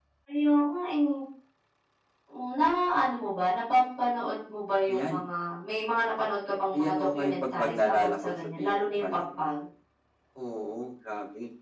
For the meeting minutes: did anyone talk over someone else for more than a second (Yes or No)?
Yes